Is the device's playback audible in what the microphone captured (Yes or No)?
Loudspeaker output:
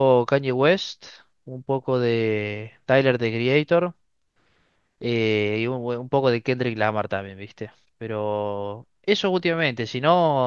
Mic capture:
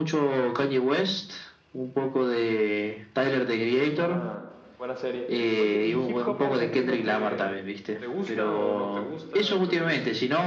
Yes